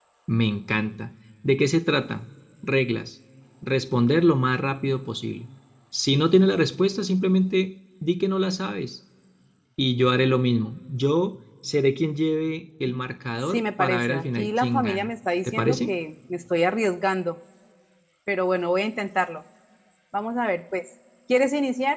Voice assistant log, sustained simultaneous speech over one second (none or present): present